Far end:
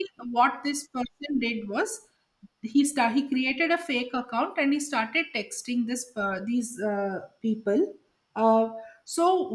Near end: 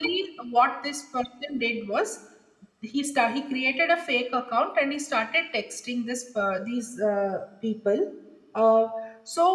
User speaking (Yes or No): No